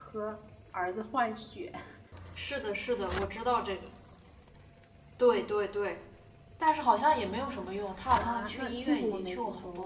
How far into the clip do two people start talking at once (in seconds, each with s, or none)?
8.1 s